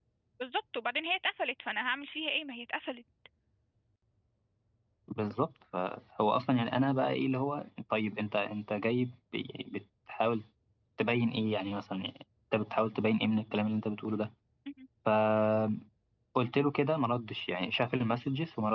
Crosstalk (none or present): none